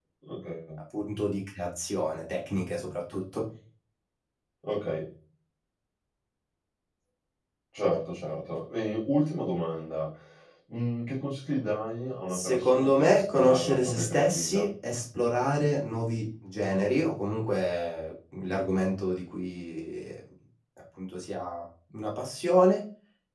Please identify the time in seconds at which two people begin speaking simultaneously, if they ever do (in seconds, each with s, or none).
12.3 s